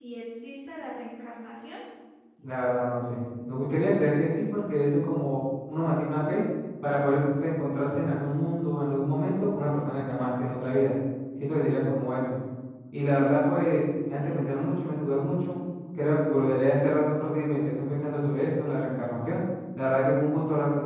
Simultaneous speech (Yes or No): Yes